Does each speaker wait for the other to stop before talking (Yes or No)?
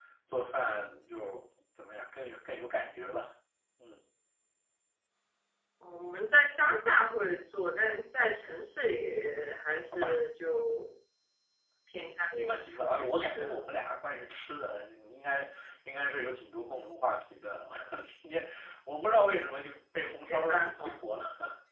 No